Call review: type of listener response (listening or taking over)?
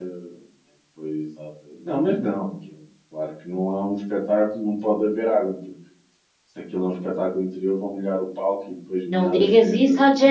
taking over